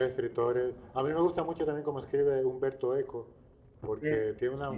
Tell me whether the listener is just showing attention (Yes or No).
Yes